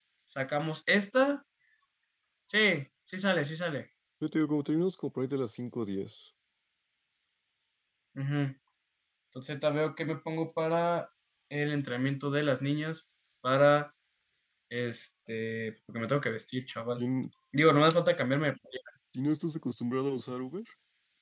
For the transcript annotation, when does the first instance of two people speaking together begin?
none

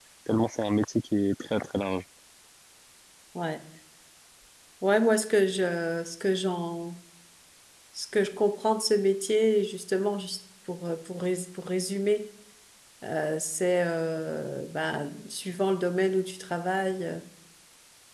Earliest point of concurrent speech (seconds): none

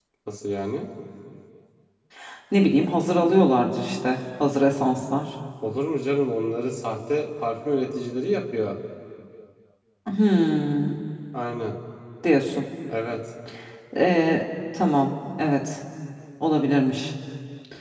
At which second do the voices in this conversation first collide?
none

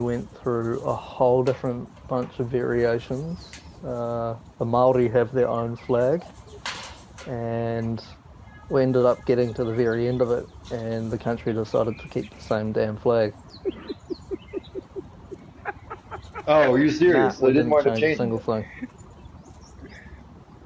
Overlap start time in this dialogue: 17.0 s

